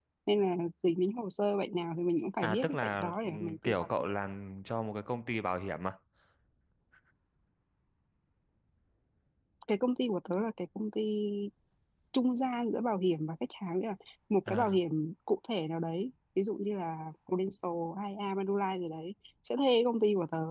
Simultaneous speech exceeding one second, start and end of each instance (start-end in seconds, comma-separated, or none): 2.4-3.7